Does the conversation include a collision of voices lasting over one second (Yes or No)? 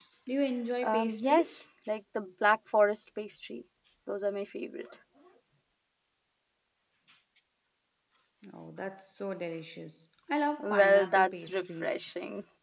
Yes